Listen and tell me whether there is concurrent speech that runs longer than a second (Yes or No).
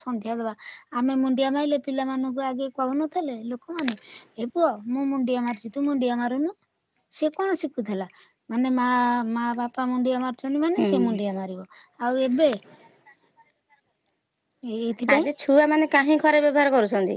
No